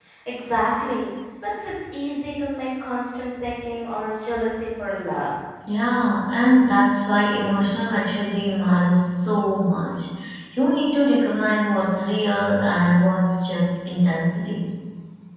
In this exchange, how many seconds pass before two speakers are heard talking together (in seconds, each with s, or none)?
none